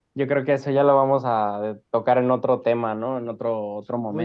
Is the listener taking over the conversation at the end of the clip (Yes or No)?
Yes